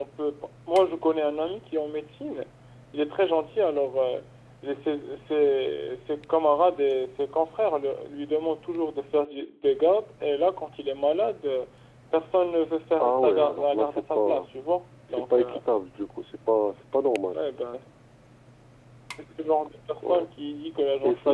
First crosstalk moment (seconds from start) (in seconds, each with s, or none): 13.0 s